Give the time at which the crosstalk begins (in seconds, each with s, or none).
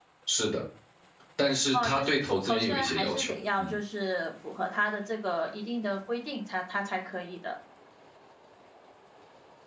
1.7 s